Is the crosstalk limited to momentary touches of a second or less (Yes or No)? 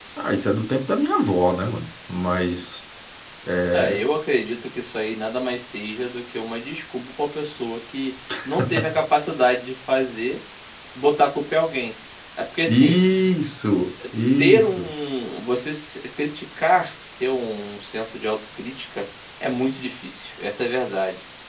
Yes